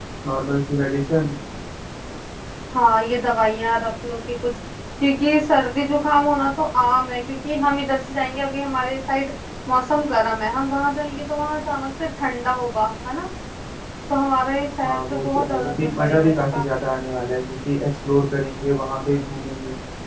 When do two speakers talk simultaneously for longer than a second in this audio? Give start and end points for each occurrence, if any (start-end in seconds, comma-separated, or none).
14.8-16.6